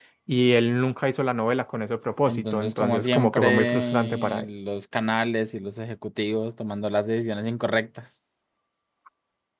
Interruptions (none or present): present